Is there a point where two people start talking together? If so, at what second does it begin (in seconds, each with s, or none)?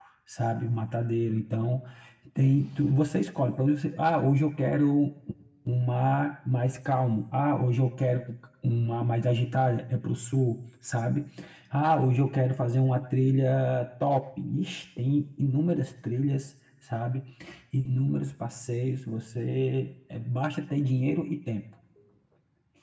none